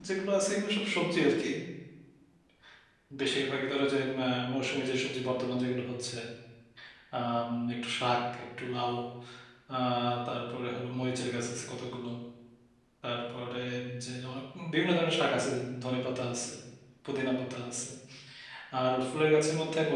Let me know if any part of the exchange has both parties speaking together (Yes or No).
No